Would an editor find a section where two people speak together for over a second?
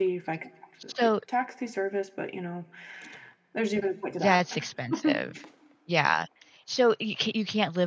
No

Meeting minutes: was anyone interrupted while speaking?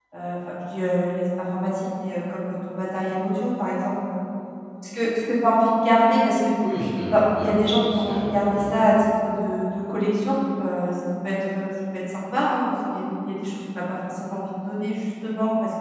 Yes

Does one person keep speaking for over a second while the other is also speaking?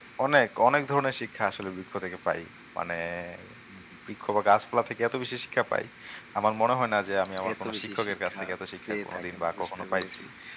Yes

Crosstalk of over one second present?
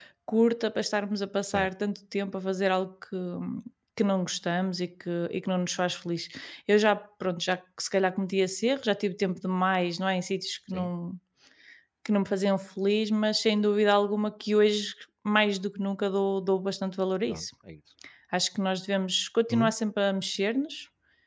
No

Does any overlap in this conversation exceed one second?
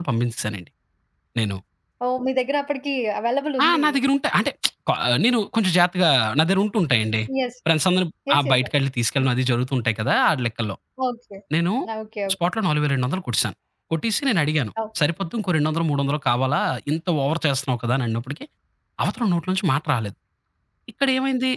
No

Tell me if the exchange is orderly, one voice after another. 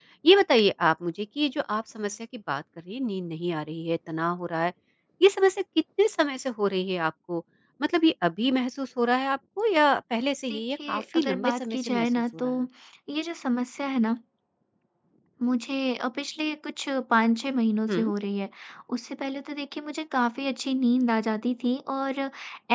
No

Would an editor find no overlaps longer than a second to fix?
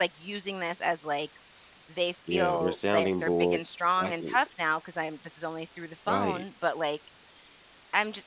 No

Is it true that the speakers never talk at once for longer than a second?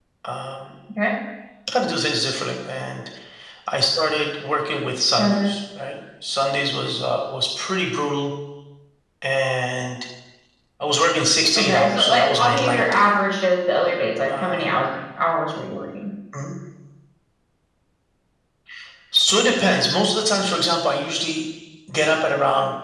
No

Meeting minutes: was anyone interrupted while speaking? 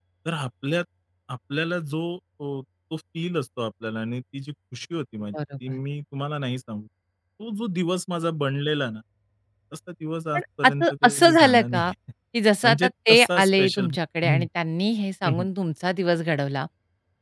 Yes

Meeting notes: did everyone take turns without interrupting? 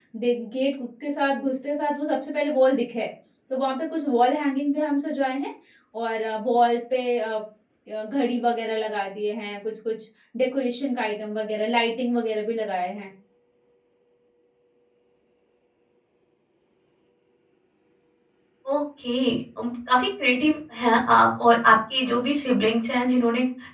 Yes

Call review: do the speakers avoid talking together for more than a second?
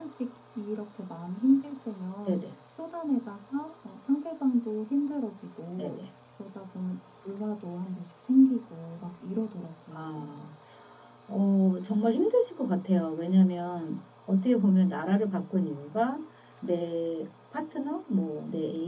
Yes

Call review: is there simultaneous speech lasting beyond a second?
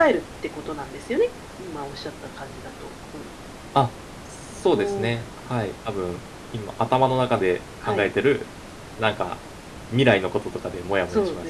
No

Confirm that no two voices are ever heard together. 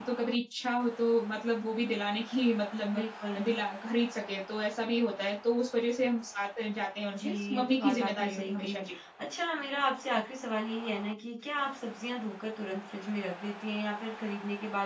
No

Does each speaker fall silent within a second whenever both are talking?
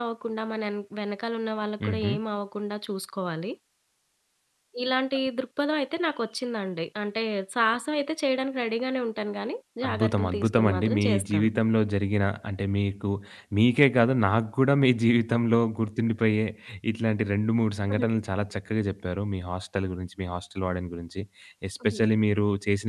No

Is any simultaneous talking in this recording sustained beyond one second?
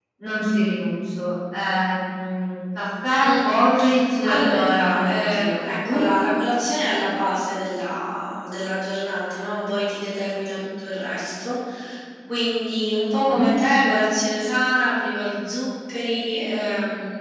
Yes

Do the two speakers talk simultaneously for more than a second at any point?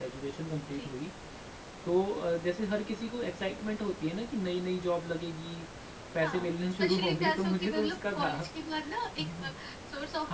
Yes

